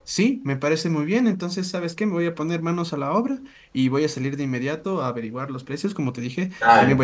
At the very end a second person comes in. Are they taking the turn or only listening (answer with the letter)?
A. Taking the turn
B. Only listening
B